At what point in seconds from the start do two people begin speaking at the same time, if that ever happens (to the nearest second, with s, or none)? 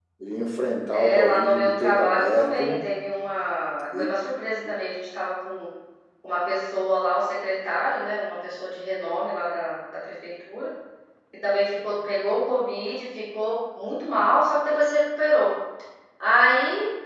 1 s